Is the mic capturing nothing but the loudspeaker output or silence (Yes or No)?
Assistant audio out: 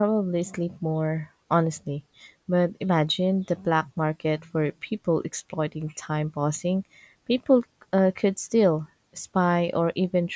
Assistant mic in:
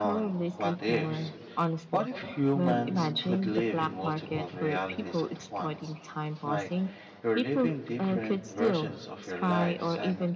No